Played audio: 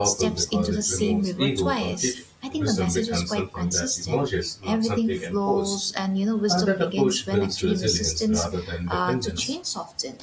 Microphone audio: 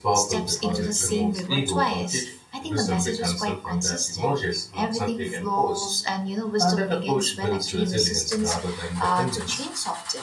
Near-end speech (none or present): none